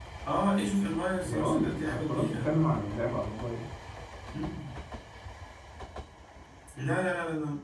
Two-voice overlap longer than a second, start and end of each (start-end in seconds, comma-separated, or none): 1.2-2.5